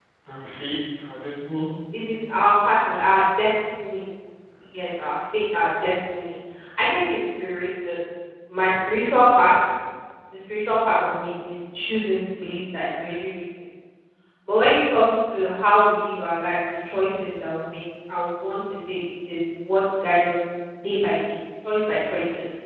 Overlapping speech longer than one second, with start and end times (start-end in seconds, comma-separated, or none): none